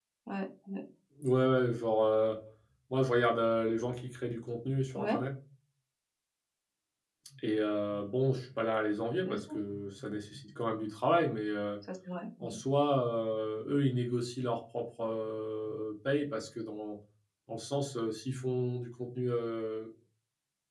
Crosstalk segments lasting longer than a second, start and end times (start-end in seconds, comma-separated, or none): none